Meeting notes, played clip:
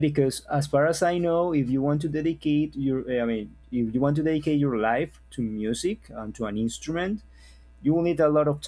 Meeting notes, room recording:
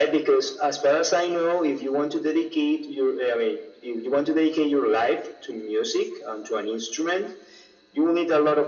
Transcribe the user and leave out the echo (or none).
none